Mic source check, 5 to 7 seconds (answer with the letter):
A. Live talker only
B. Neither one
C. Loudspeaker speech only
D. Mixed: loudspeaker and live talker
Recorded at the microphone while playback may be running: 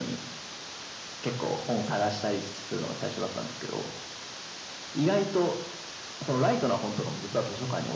C